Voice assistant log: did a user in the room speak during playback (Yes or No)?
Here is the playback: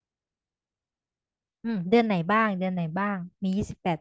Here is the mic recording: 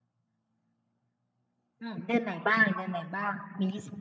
No